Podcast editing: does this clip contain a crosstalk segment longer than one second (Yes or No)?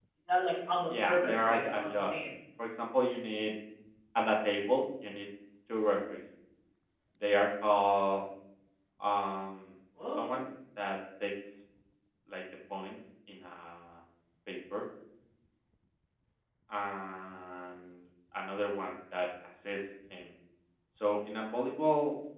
Yes